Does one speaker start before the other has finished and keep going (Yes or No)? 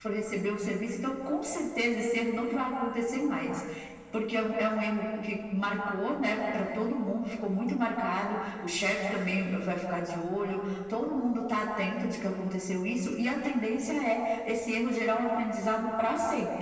No